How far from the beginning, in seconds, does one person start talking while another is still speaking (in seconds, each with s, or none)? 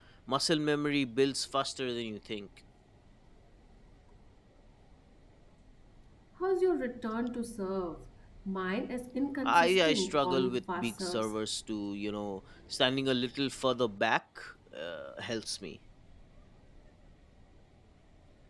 9.4 s